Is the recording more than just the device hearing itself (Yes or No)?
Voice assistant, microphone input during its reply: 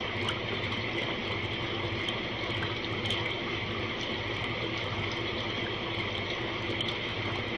No